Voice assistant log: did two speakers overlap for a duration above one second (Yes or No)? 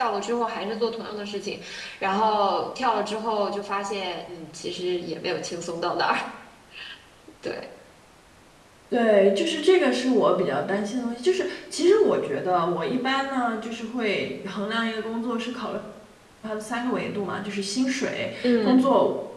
No